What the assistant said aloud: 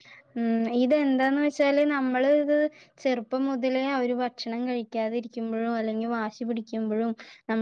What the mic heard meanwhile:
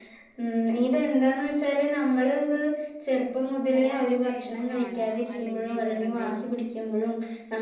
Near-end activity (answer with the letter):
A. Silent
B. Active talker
B